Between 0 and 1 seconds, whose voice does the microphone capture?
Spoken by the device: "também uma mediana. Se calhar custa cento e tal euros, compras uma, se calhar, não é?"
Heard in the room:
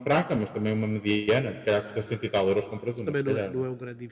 echo only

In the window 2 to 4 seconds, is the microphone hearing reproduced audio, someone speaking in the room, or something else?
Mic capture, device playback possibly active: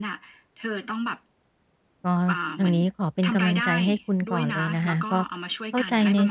both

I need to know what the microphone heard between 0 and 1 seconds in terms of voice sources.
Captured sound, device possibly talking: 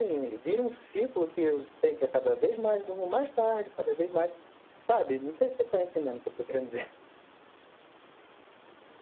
echo only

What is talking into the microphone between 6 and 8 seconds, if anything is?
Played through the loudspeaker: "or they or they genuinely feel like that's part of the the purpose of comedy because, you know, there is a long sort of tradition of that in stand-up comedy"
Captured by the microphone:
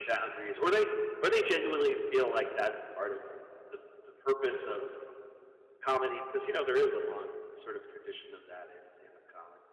echo only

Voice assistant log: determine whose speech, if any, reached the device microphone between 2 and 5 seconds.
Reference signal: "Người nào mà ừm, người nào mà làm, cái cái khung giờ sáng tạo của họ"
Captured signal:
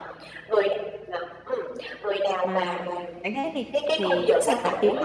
both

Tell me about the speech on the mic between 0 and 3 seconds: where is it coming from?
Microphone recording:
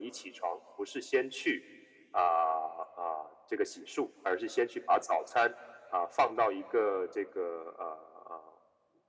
echo only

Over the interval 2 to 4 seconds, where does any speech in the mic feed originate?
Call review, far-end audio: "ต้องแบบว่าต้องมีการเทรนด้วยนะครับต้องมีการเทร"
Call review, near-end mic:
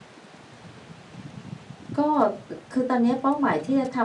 user only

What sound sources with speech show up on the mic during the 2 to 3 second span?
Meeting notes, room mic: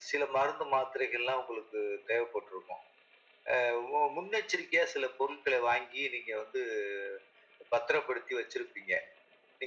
echo only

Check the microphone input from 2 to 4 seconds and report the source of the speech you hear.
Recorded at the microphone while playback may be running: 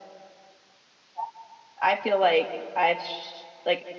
echo only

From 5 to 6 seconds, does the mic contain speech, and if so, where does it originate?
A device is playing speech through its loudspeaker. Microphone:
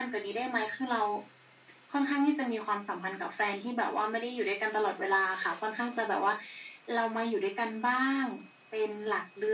echo only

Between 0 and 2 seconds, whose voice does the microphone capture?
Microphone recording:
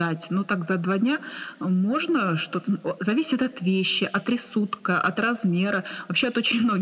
echo only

